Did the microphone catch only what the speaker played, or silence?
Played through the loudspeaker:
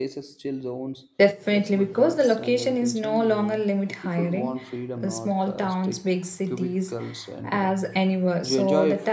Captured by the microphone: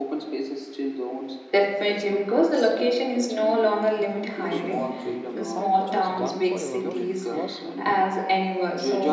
No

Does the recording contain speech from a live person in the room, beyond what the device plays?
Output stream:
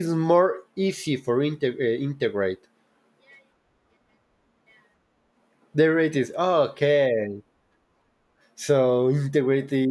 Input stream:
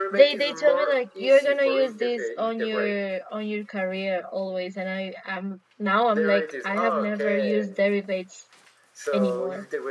Yes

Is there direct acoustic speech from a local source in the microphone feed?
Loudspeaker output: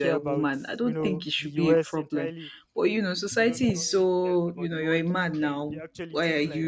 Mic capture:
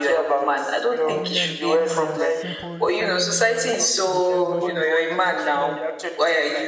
Yes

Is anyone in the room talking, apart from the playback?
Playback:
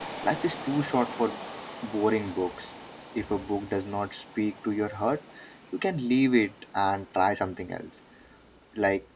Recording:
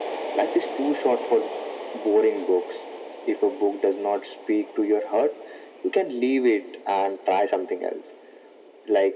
No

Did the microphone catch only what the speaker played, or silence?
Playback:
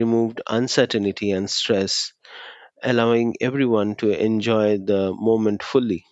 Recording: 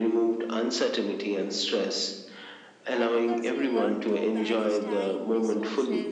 No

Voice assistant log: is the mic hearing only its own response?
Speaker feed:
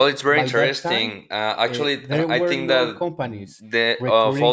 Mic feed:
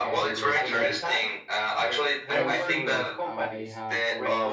No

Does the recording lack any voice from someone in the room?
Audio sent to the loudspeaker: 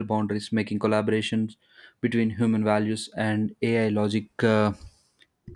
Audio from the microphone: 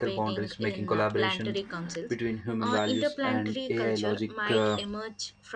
No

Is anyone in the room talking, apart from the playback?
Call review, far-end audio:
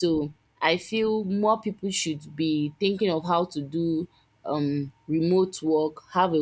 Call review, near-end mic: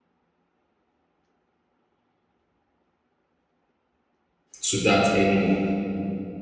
Yes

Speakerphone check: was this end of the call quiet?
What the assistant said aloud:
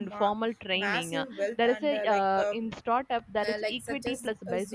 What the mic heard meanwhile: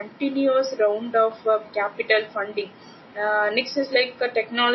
No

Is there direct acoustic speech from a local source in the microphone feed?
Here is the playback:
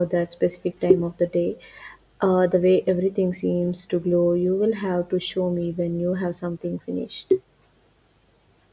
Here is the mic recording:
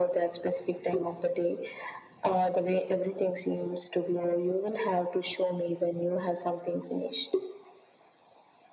No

